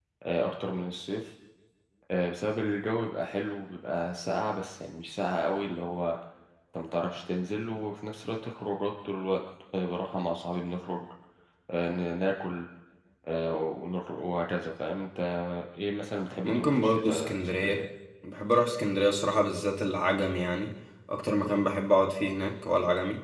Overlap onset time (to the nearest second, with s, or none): 16 s